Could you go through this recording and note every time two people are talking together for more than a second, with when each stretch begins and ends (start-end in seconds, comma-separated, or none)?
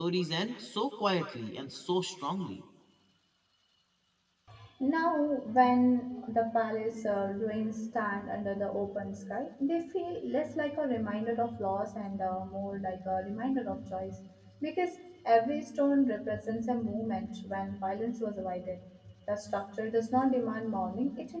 none